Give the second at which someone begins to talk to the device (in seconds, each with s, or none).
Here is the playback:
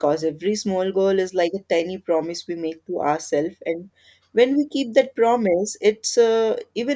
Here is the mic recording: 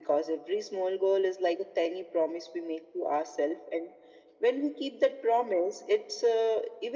none